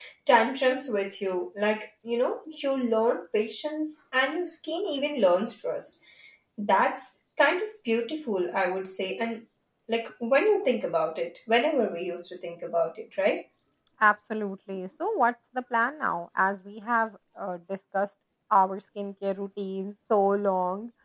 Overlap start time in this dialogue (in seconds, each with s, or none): none